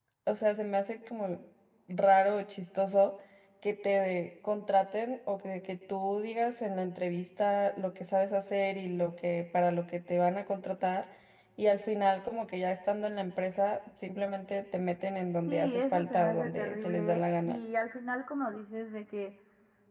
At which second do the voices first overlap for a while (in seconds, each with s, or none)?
15.5 s